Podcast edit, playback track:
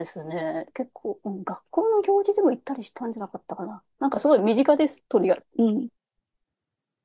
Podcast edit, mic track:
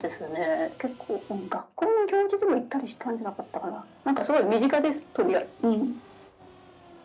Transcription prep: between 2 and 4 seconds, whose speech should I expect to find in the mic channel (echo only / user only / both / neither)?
echo only